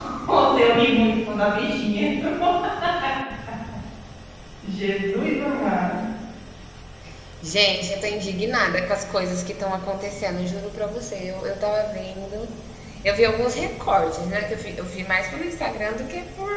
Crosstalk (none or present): none